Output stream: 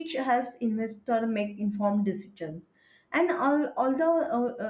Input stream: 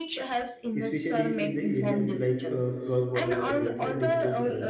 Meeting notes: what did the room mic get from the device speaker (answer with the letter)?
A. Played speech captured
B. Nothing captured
A